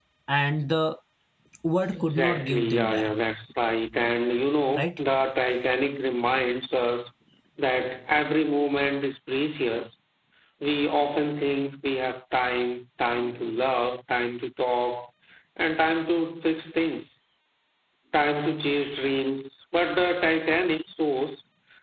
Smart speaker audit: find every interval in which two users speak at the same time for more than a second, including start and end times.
1.9-3.1

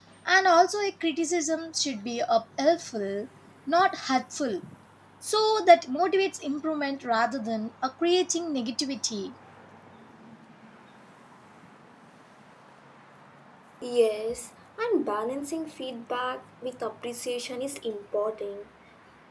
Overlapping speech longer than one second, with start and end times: none

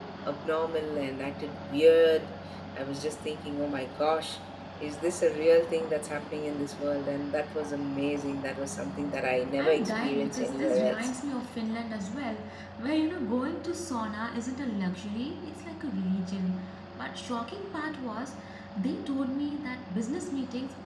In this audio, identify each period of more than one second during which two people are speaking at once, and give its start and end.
9.6-11.1

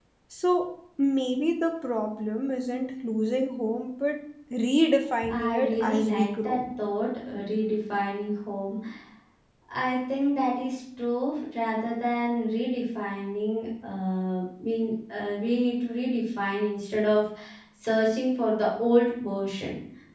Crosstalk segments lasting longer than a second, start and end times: 5.3-6.6

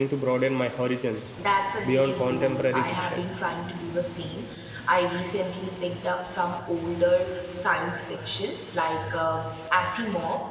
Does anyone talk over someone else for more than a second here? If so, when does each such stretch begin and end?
1.8-3.2

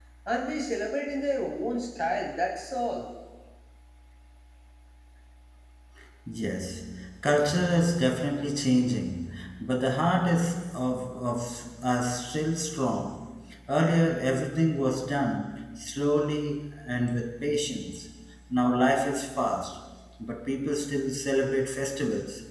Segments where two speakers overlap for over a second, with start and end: none

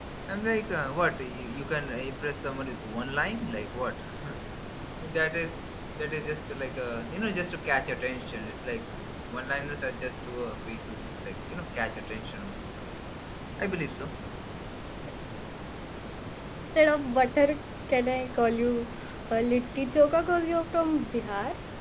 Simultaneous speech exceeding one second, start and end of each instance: none

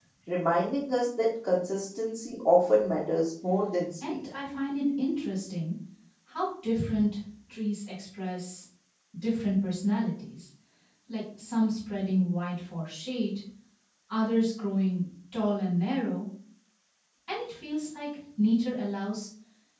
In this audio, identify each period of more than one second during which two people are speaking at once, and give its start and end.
none

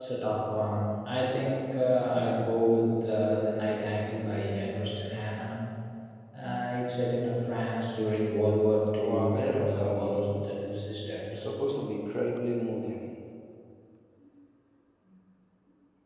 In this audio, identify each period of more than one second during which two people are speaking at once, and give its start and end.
9.0-10.3

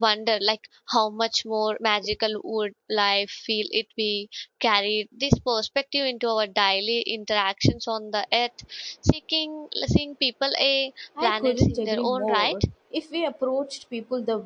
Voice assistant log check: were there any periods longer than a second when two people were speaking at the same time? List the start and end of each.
11.2-12.5

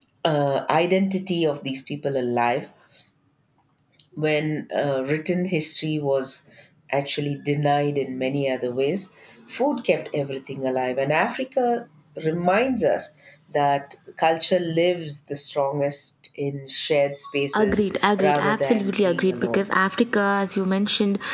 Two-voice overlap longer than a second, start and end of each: 18.2-19.7

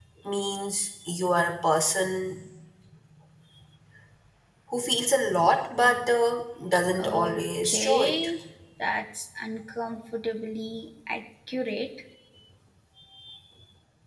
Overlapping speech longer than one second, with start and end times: 7.0-8.3

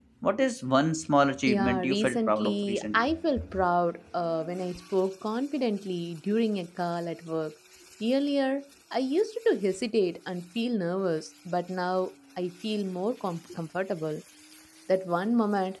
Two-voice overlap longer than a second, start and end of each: 1.5-3.1

